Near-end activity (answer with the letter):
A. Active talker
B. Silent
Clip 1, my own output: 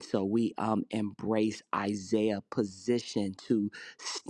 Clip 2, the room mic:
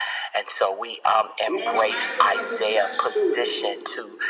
A